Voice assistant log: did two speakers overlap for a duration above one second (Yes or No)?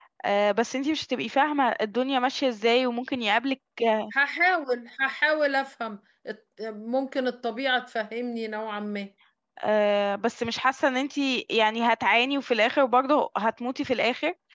No